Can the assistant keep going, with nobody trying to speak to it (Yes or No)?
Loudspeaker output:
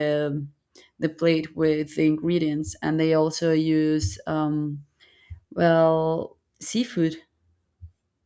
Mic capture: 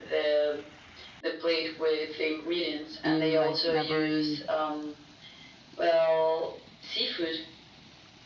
No